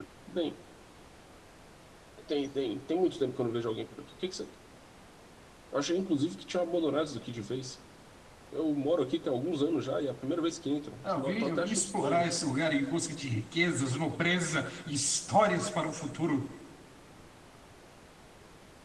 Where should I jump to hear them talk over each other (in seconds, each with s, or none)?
11.0 s